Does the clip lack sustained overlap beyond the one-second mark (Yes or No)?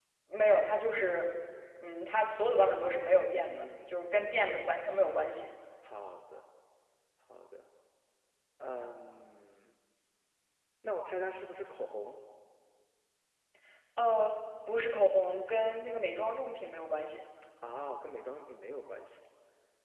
Yes